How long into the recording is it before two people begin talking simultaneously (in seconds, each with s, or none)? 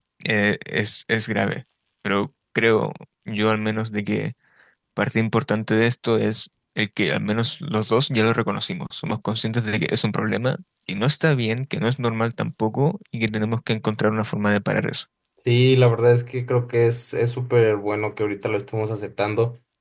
none